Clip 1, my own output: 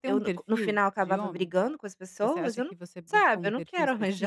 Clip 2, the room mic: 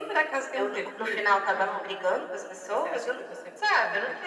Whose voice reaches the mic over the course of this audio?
echo only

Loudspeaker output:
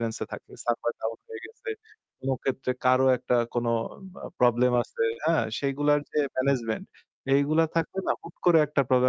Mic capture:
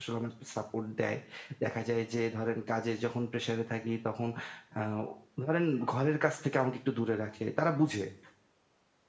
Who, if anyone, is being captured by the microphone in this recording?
user only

